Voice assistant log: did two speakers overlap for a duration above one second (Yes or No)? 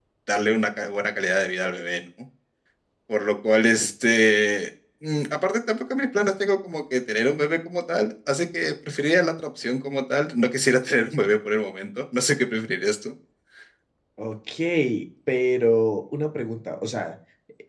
No